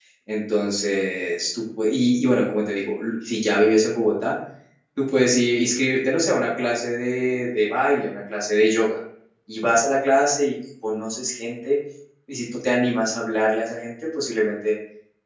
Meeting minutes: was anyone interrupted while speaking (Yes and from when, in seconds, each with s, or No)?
No